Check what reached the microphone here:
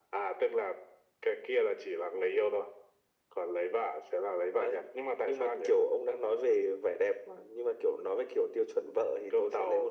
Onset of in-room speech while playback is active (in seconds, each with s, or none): none